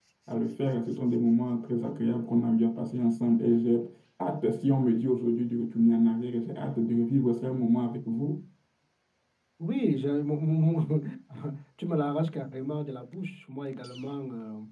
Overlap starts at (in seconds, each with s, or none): none